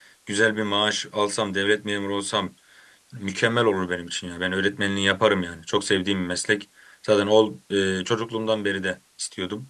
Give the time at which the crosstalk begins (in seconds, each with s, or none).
none